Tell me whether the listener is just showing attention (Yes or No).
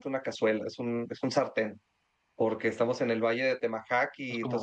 Yes